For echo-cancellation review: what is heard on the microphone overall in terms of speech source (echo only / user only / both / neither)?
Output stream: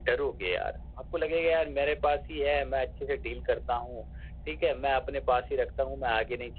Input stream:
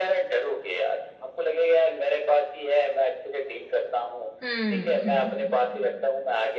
both